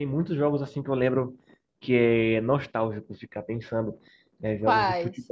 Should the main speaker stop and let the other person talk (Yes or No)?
No